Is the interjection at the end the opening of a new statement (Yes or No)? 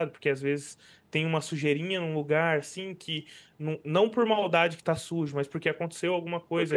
No